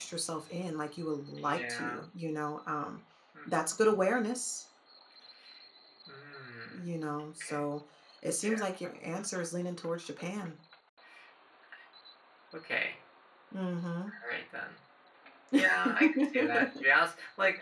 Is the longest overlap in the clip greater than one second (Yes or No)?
Yes